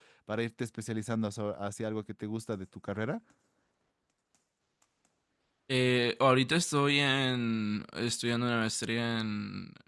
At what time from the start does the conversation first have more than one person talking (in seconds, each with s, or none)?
none